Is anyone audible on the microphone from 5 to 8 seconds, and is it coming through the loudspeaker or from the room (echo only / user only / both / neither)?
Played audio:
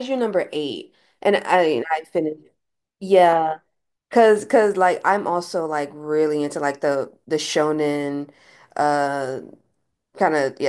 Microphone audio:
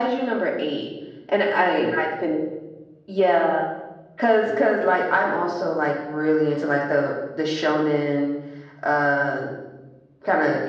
echo only